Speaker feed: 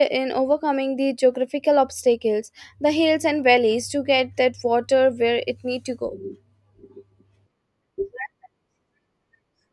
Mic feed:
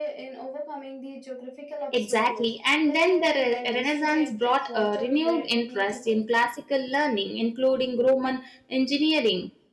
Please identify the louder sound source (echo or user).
user